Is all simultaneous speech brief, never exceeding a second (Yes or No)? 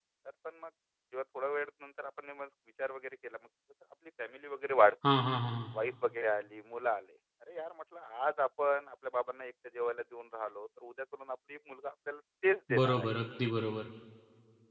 Yes